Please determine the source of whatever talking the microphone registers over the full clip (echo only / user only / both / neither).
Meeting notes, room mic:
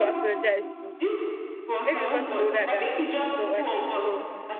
both